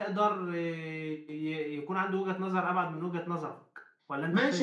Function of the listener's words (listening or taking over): taking over